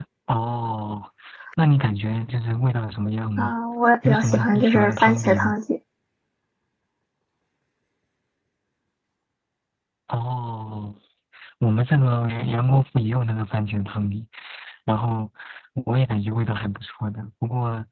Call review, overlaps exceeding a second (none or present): present